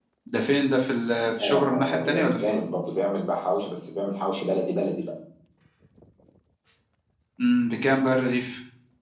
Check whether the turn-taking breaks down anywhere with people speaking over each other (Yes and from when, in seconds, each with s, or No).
Yes, from 1.4 s